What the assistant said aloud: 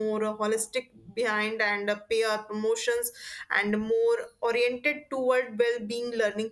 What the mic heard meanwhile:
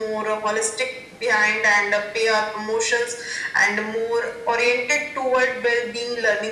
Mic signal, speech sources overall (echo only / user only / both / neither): echo only